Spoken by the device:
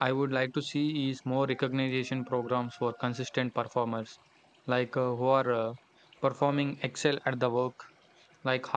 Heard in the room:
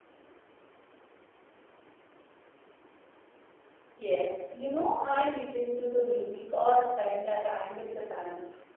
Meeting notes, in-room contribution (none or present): present